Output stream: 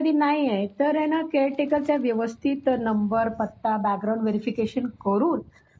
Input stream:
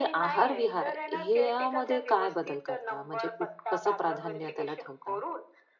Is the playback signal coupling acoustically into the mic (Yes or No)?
Yes